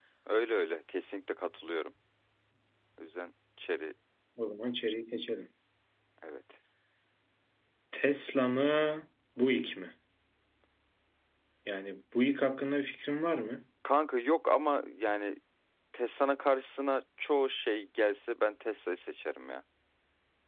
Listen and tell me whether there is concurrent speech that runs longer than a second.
No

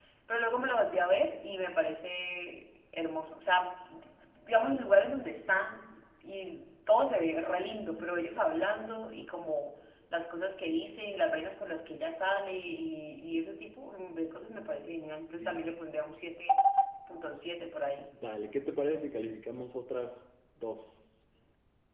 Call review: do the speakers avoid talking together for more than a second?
Yes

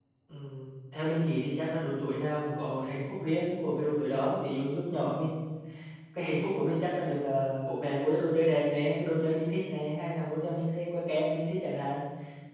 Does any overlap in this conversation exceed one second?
No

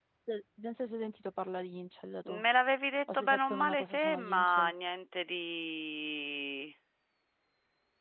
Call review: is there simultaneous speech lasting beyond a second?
Yes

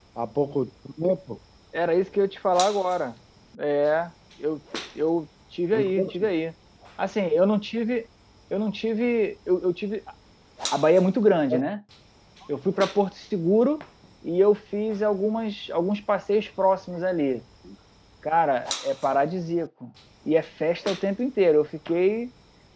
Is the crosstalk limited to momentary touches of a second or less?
Yes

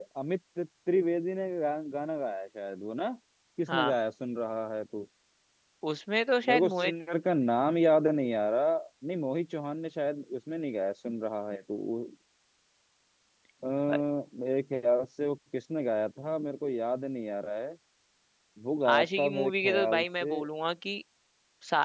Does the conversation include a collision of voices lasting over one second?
Yes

